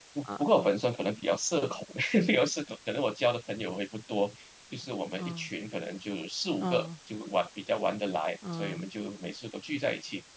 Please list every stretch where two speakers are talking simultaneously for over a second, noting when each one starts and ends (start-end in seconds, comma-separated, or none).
none